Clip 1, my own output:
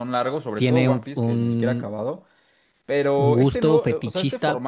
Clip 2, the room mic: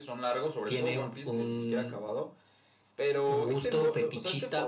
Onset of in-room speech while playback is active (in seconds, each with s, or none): none